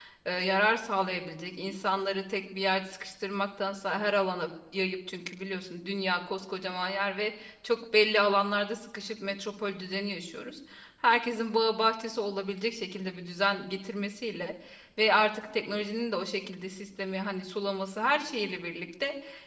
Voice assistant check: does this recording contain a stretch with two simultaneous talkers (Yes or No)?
No